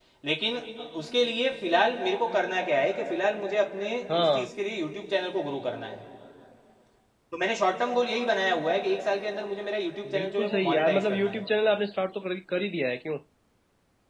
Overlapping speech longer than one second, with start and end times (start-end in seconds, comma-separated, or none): 10.1-11.4